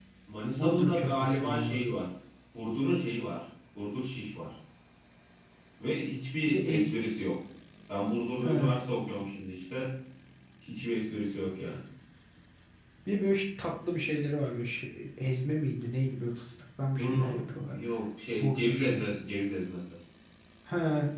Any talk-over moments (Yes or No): Yes